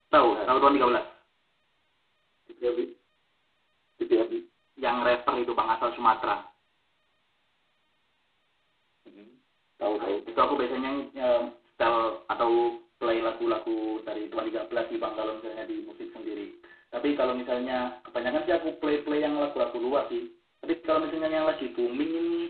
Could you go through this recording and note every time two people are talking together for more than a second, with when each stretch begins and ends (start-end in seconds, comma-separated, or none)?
none